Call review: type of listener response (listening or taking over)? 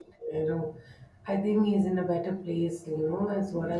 listening